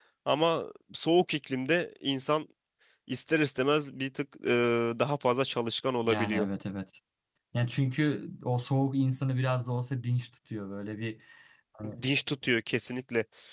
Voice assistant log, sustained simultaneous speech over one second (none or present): none